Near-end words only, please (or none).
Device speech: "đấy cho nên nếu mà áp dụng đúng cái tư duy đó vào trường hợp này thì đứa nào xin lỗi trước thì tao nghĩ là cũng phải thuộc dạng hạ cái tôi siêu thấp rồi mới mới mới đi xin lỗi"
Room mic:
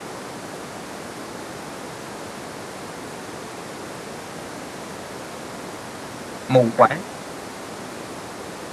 mù quáng